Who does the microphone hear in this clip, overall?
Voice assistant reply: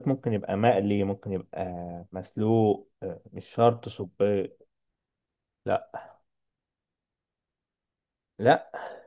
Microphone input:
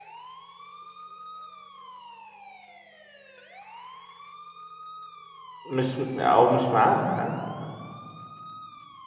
user only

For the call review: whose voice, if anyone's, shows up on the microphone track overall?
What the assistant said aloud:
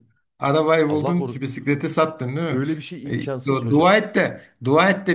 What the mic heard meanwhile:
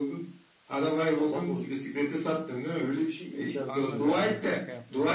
both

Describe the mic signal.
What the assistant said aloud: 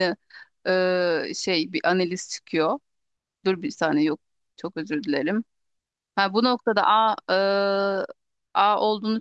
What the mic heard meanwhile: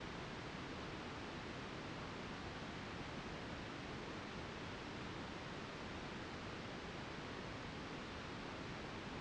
neither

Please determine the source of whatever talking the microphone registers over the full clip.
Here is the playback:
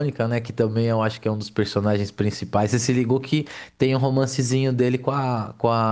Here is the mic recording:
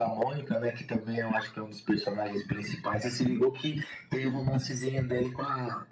echo only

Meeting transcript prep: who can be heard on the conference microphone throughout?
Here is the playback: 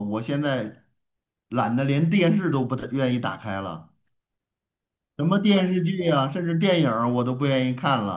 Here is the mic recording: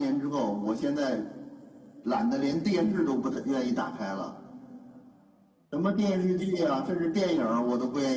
echo only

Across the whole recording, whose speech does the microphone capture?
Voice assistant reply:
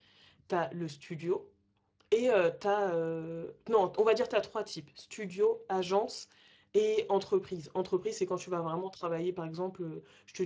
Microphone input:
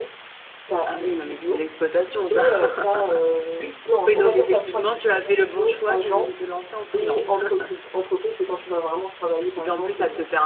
both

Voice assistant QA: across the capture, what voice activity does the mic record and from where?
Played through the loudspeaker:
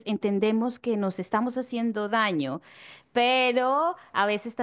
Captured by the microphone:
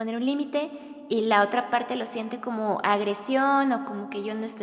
user only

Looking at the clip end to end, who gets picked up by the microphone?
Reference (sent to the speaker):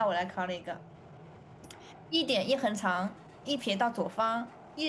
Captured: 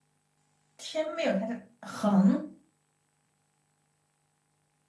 user only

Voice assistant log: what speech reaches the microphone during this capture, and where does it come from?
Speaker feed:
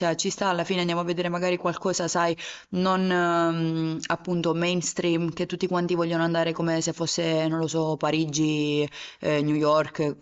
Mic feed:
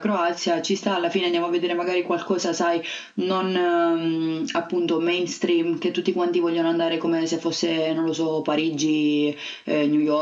echo only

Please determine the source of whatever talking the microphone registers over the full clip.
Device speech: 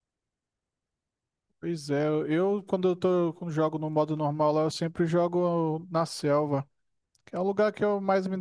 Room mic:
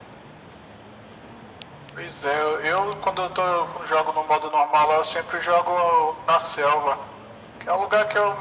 echo only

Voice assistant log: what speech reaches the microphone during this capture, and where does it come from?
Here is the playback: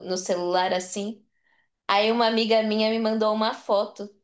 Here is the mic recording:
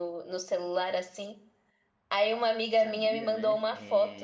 both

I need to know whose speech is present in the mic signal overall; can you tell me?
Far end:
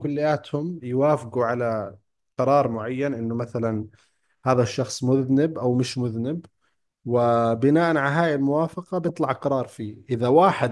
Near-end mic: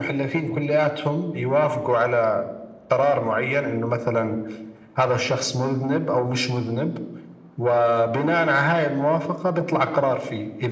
echo only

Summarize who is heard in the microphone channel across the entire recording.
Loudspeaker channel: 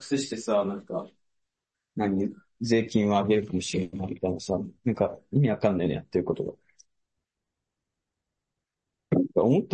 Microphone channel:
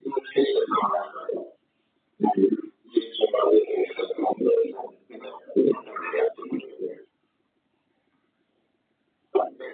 echo only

